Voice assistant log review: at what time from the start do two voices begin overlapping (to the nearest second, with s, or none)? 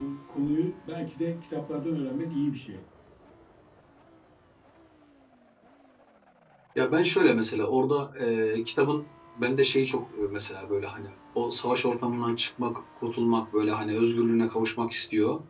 none